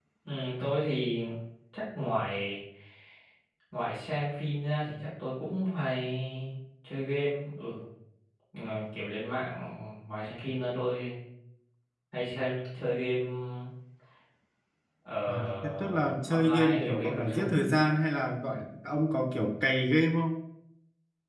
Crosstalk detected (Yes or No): Yes